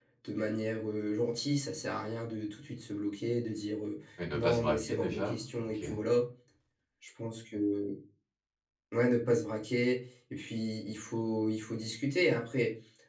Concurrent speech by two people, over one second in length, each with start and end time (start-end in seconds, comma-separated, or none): 4.3-5.8